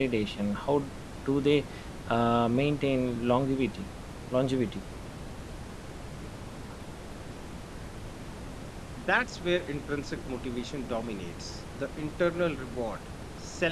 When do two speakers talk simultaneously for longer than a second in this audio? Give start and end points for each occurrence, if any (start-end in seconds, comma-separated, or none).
none